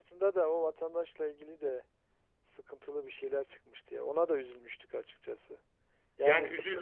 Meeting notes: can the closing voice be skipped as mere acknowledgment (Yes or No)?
Yes